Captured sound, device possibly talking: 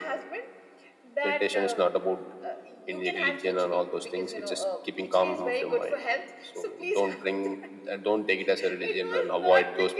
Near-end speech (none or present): none